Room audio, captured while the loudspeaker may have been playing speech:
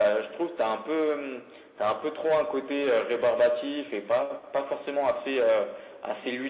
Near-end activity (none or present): none